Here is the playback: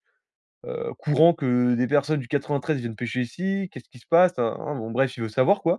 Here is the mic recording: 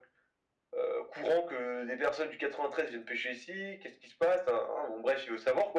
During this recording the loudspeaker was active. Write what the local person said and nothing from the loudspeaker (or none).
none